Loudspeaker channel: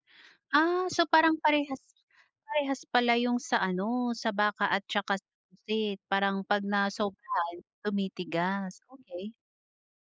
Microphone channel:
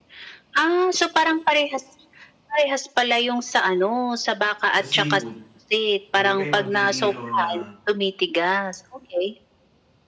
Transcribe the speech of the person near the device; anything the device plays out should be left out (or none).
sa seafood, kung ika'y mag-iihaw ng